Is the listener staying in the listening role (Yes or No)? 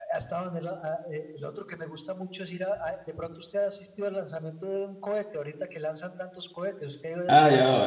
No